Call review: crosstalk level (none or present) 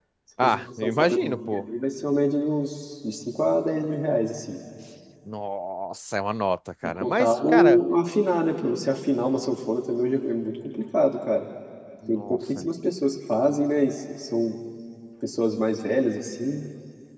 present